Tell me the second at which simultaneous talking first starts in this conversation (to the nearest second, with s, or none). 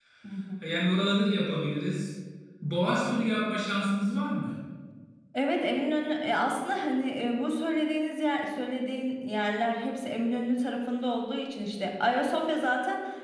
none